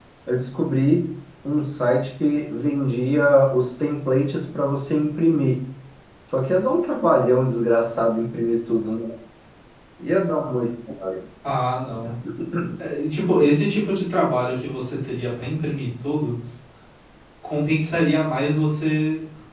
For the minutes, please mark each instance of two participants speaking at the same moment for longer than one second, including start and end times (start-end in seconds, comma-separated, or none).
none